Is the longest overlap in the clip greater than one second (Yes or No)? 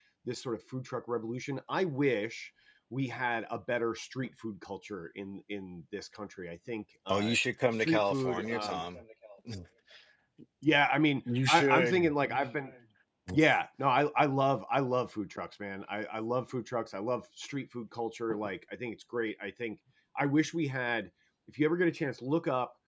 Yes